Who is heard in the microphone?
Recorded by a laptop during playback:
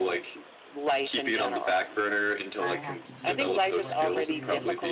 both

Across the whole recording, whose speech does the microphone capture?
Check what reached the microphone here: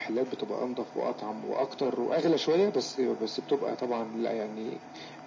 echo only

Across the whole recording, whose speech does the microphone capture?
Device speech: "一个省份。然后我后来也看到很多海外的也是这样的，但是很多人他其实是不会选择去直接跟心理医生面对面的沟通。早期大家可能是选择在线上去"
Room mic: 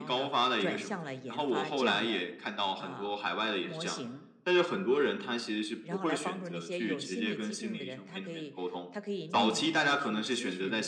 both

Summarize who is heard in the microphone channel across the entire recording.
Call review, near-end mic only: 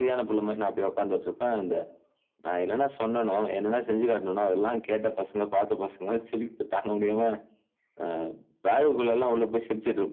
echo only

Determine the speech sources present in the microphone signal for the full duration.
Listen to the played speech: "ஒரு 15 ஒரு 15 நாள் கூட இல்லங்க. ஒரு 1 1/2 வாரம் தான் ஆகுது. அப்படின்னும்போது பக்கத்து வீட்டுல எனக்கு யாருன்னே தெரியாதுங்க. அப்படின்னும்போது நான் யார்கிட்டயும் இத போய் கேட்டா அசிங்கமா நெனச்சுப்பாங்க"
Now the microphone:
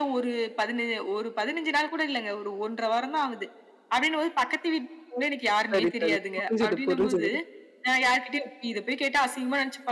both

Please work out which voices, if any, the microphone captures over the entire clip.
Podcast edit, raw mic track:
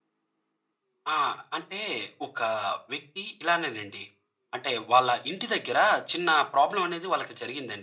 echo only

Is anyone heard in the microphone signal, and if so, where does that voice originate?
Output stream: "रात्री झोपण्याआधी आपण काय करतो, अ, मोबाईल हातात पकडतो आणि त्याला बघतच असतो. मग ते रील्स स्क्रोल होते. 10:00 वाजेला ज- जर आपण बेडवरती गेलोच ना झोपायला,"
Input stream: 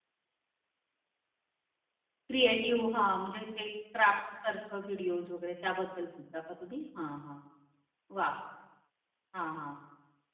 user only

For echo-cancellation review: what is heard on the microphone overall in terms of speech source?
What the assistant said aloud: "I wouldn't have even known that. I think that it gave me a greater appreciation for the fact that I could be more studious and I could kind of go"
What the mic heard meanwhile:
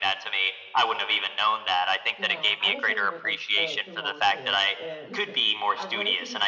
both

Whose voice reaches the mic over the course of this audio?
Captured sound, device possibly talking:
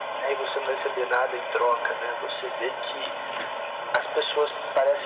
echo only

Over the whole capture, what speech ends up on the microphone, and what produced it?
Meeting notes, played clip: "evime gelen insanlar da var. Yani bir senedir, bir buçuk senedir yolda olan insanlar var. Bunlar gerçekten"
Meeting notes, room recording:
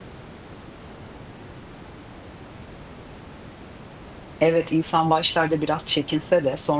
user only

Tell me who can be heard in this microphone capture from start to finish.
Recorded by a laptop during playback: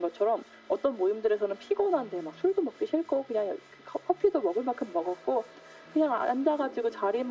echo only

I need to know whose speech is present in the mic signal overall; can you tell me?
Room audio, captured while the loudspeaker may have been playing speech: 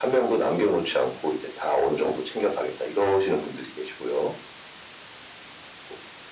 echo only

